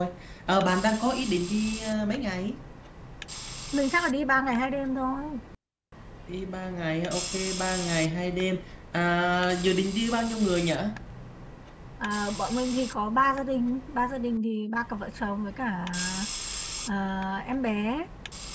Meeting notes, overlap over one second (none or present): none